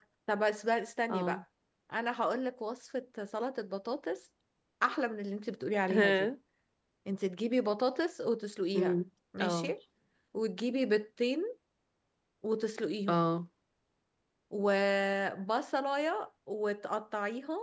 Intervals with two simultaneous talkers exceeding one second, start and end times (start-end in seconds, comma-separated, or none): none